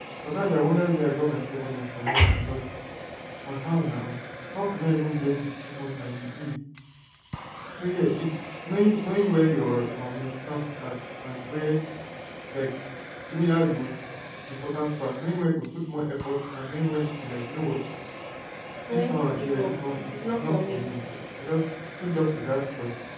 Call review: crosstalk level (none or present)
present